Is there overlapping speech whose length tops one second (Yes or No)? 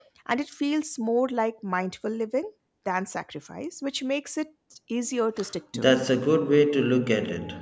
No